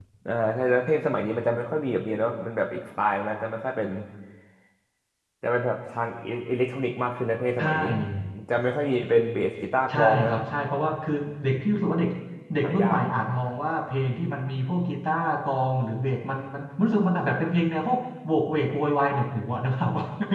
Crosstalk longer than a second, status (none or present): none